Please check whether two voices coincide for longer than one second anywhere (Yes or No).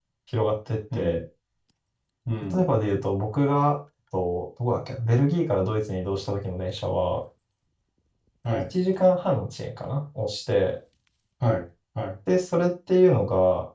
No